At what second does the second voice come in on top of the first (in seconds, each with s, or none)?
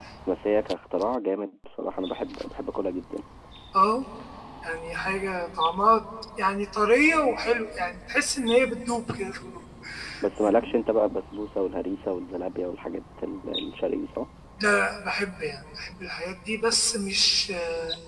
none